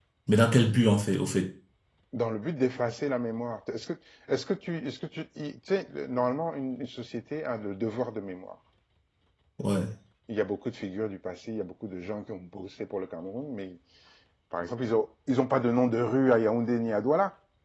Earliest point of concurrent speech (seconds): none

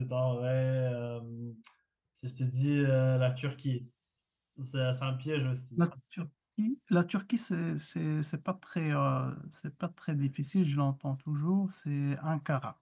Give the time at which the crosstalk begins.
none

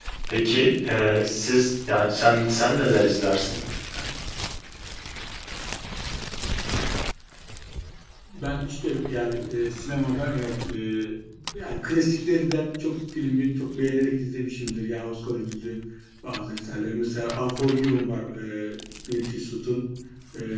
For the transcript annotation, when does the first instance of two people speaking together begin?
none

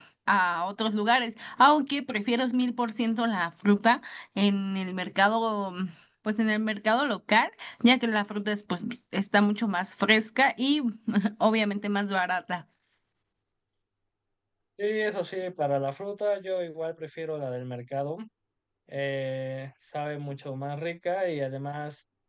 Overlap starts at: none

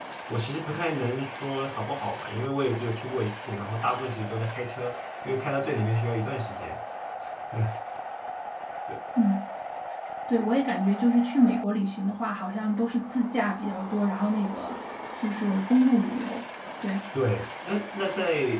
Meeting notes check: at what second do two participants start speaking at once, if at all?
none

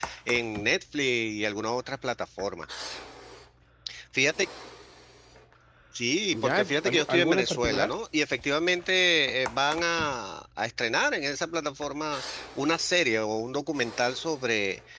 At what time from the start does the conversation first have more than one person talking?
6 s

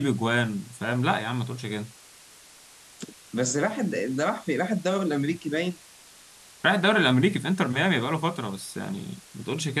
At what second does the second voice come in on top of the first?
none

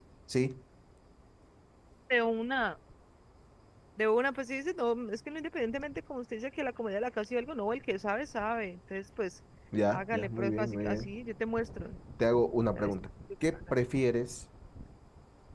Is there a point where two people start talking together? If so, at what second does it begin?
10 s

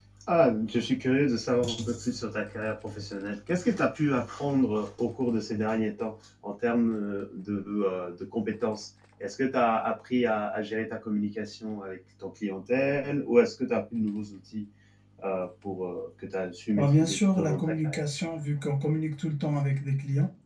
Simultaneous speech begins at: 17 s

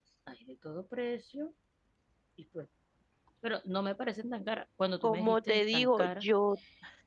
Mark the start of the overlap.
5 s

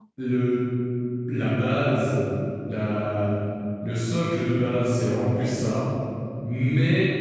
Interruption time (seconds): none

